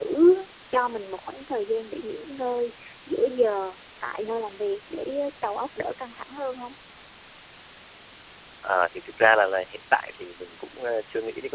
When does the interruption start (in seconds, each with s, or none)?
none